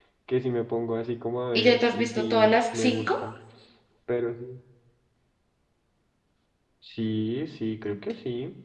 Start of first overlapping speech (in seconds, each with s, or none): 1.6 s